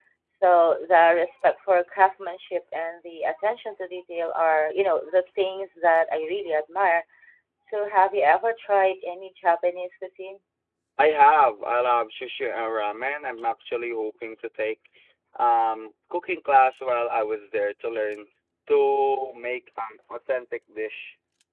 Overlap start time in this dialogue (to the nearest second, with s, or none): none